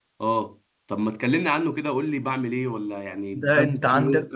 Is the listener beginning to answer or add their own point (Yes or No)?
Yes